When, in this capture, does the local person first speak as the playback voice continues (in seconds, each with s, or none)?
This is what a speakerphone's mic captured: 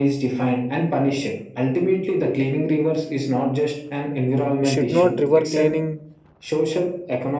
4.6 s